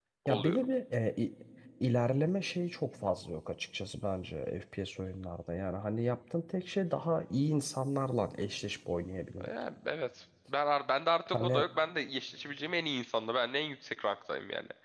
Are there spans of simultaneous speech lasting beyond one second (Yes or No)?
No